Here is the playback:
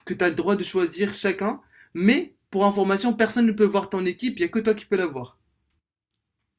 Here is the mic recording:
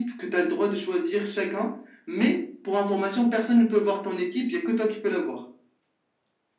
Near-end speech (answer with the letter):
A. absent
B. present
A